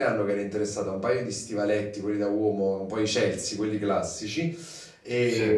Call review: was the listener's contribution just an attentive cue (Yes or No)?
Yes